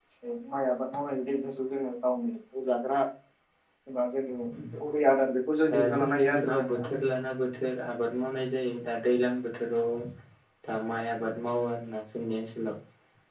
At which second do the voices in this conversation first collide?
5.7 s

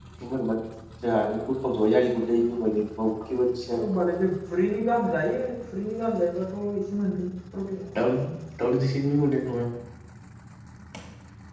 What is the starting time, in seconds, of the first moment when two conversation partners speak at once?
none

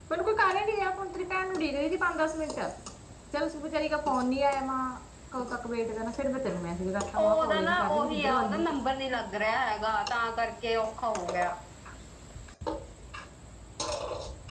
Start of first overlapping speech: 7.2 s

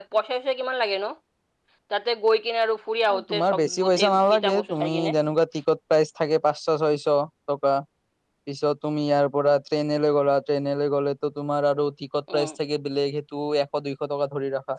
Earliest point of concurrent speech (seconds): 3.1 s

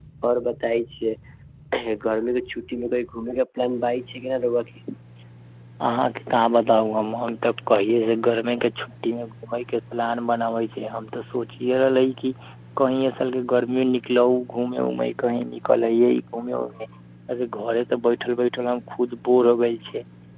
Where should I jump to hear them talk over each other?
none

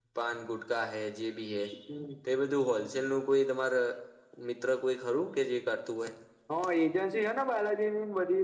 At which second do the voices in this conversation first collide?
none

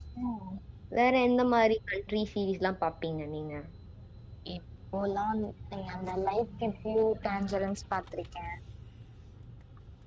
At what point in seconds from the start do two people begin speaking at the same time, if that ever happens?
none

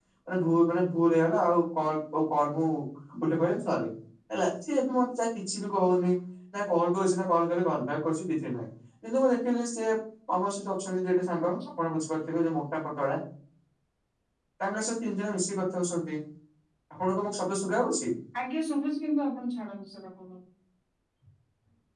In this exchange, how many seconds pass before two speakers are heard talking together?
none

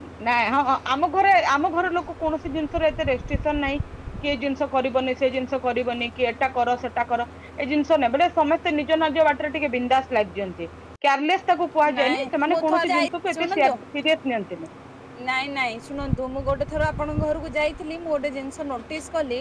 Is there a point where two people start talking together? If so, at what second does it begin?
11.9 s

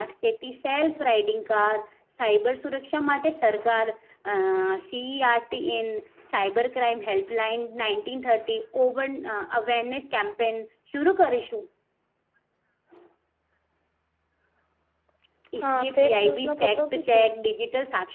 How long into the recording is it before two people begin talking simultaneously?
15.6 s

